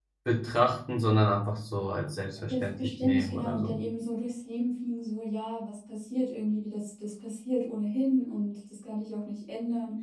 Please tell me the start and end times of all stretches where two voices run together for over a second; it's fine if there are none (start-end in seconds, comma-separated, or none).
2.5-3.8